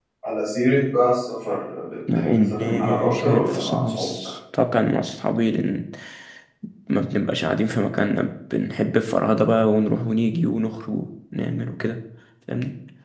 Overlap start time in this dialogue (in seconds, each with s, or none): 2.1 s